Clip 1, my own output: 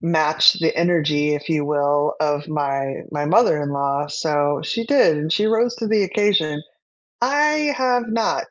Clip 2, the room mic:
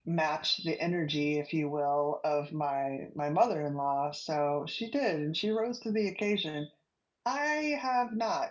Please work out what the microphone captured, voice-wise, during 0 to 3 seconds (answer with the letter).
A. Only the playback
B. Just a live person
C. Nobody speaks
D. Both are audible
A